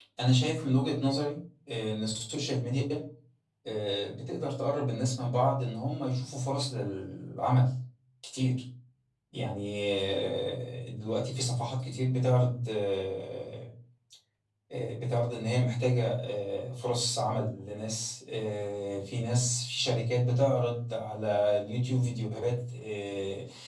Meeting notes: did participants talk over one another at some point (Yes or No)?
No